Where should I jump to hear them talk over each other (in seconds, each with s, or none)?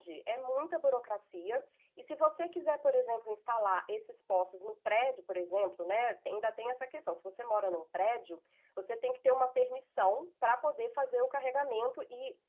none